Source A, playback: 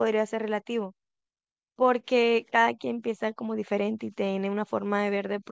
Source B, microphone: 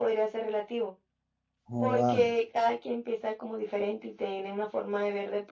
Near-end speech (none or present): present